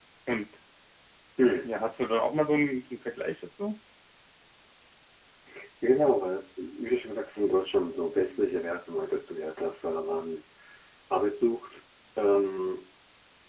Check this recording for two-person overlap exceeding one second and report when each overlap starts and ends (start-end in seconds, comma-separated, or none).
none